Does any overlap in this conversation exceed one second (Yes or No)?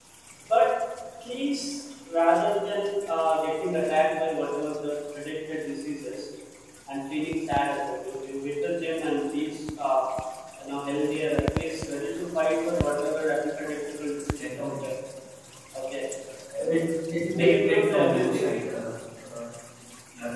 Yes